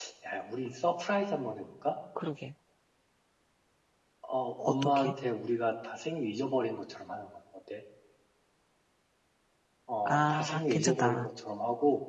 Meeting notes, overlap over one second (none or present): present